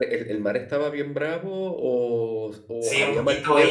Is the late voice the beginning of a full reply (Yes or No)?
Yes